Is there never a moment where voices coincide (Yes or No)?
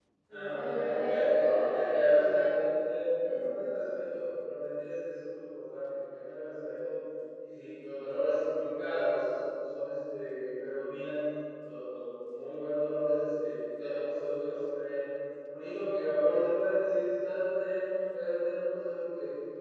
No